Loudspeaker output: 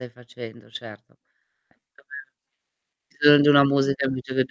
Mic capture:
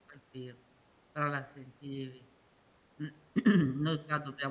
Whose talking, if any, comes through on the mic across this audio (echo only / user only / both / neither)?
user only